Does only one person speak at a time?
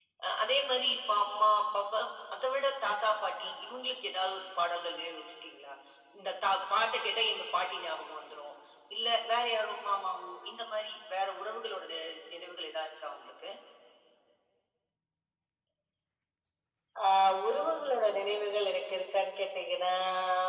Yes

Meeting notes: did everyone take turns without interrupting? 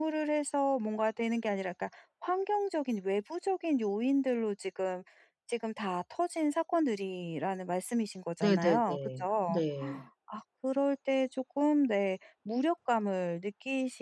No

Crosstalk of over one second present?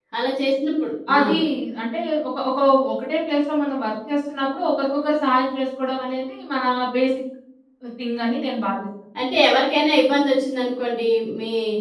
No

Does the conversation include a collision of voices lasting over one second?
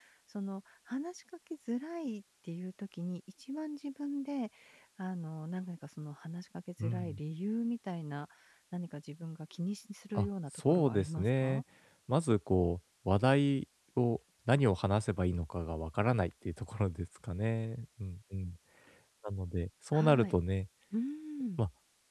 Yes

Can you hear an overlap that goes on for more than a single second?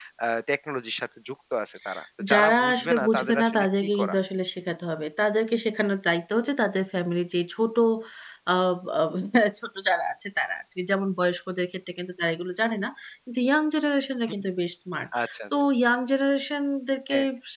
Yes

